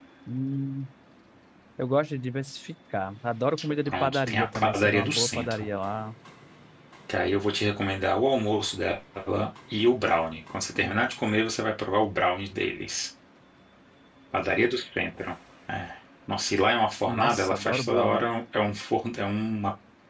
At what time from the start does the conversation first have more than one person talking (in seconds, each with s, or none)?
3.9 s